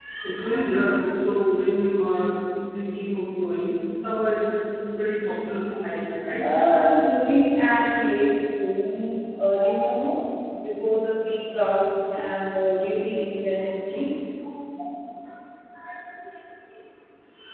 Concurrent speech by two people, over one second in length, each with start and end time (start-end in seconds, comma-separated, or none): none